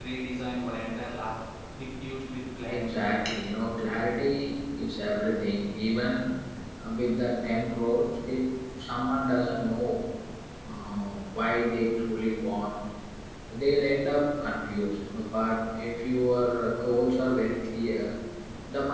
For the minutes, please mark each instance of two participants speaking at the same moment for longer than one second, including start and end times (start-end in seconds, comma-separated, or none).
none